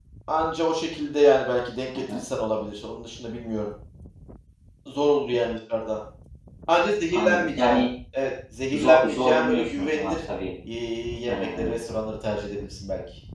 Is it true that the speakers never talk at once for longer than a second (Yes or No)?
No